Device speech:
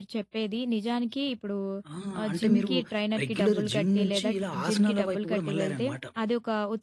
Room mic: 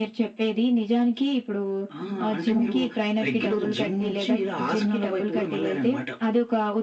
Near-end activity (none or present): none